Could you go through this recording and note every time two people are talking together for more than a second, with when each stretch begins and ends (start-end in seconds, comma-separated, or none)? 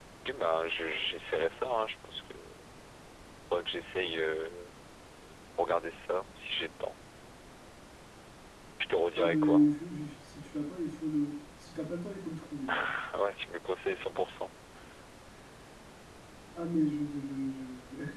none